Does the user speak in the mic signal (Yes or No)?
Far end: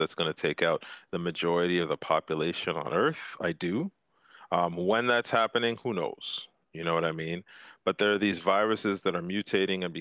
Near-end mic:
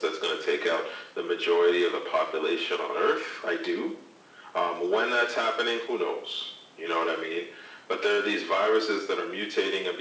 No